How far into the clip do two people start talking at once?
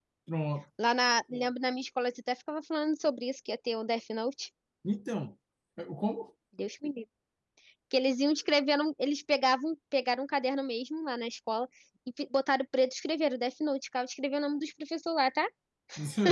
none

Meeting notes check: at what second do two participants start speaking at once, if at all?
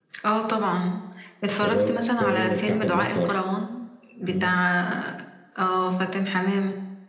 1.5 s

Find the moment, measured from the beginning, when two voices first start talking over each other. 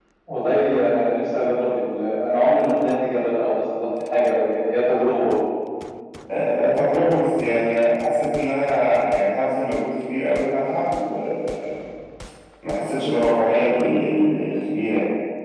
none

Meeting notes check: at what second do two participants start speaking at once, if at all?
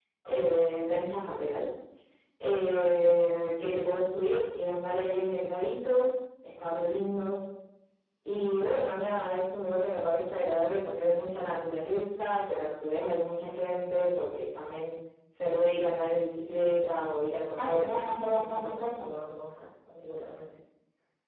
17.6 s

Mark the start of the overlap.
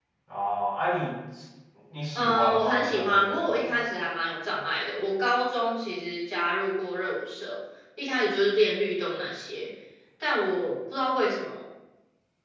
2.1 s

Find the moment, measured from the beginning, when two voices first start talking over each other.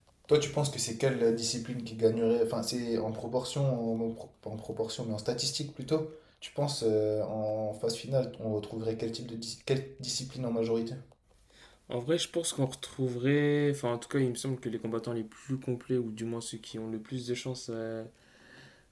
none

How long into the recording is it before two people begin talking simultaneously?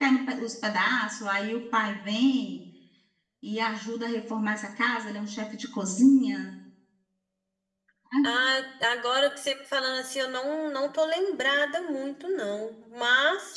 none

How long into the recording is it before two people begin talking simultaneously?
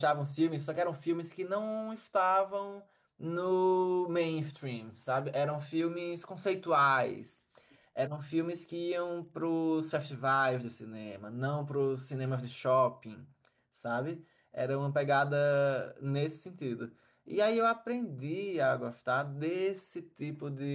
none

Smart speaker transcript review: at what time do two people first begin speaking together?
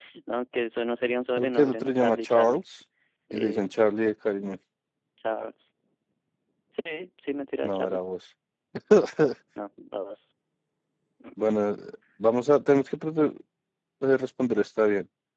1.4 s

